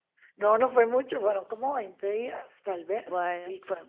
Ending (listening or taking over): listening